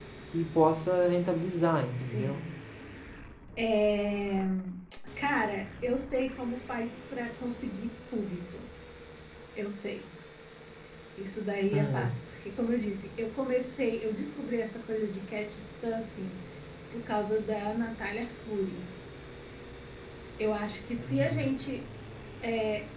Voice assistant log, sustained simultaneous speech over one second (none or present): none